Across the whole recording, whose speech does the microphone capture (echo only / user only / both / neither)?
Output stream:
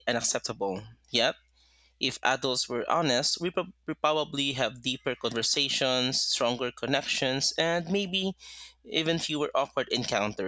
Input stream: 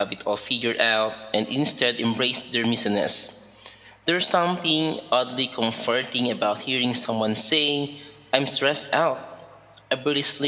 user only